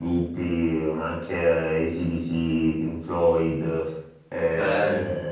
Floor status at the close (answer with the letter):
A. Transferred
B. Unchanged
B